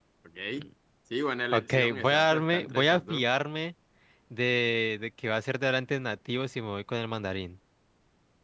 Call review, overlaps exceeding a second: present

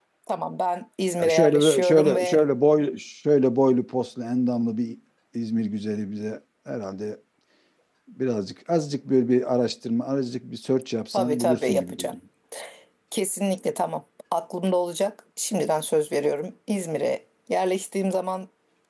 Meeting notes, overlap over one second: present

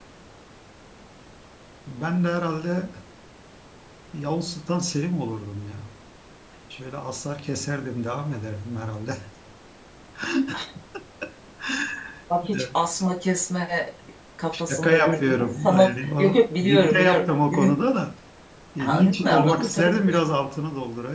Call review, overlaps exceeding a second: present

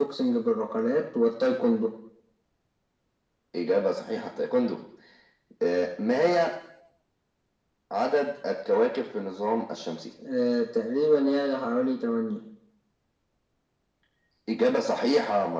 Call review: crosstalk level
none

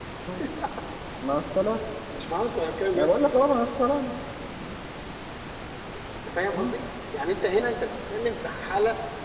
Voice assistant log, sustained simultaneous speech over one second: none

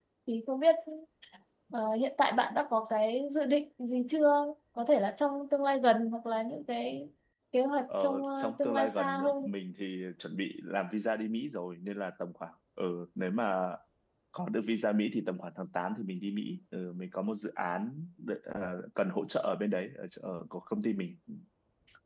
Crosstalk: present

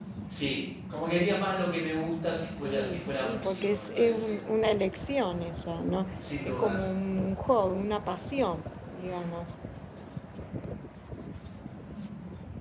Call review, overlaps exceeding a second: present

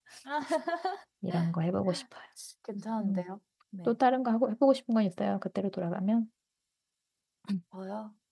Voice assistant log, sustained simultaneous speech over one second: none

